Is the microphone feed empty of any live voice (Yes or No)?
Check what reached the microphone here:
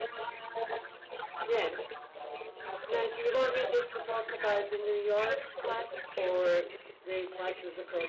No